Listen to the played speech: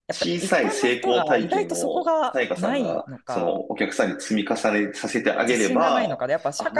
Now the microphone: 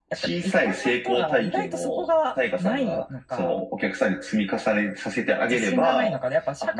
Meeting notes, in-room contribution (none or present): none